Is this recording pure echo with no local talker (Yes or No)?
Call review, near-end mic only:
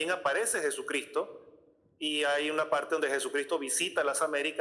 Yes